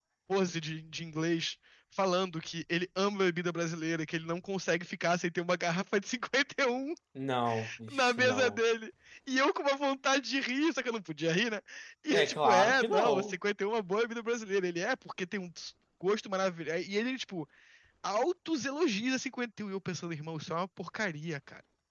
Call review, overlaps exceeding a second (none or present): present